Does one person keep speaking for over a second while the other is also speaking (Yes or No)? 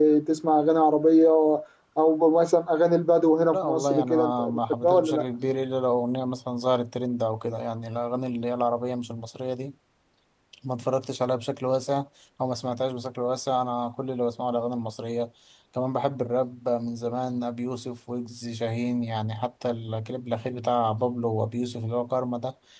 Yes